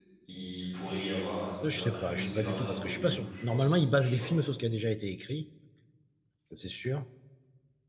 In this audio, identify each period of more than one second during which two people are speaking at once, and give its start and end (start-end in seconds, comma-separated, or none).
1.6-4.3